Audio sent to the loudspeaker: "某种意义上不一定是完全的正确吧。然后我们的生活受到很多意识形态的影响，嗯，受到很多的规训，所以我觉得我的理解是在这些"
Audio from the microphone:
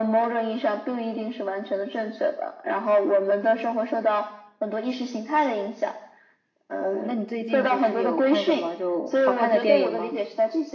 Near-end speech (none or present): present